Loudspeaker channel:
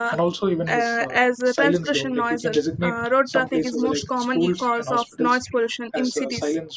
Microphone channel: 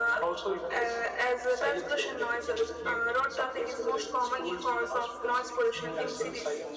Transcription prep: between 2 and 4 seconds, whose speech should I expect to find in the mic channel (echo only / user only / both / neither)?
echo only